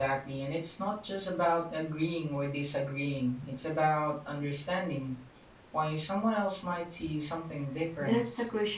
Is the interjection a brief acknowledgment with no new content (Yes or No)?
No